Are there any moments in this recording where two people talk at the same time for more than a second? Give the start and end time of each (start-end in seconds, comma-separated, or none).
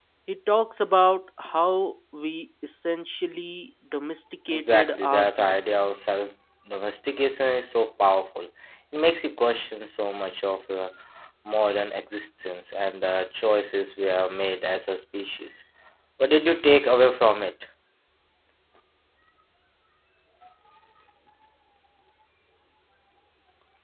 4.5-5.8